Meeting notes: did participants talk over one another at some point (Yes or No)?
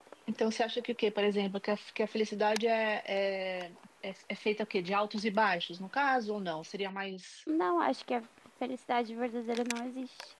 No